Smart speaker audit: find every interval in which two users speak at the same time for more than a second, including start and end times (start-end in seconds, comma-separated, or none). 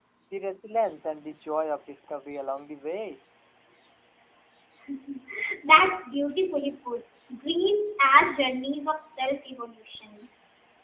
none